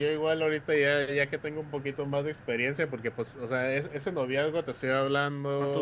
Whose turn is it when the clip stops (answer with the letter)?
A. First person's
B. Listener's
A